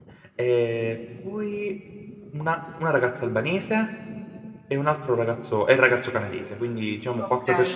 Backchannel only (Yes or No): Yes